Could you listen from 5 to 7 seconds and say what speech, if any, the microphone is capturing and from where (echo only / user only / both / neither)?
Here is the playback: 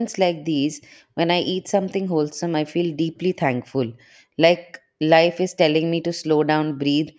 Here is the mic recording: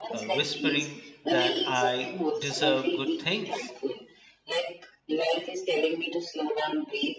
echo only